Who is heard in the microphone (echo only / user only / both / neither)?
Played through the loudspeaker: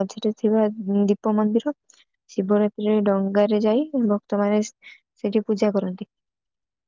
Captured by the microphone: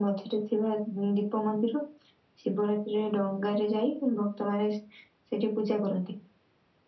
echo only